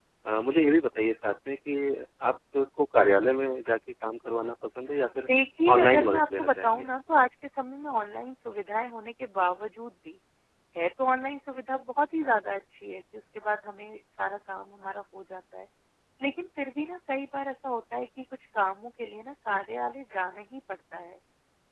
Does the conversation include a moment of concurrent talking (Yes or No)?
Yes